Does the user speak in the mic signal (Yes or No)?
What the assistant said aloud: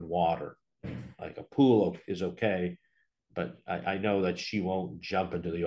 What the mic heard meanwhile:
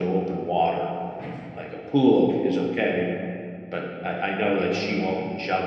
No